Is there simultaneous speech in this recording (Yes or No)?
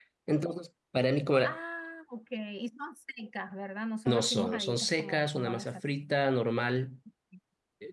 Yes